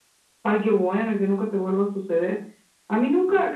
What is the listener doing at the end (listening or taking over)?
listening